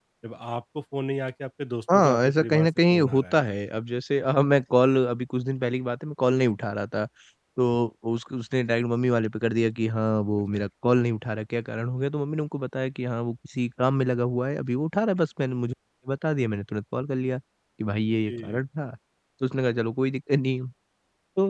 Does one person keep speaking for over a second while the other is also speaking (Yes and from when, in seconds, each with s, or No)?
Yes, from 1.9 s